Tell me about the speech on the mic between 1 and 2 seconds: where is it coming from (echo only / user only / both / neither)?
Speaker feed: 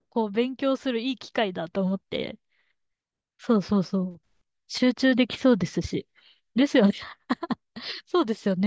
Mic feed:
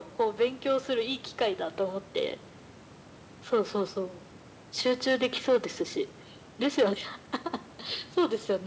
echo only